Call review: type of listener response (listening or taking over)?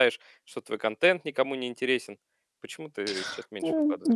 taking over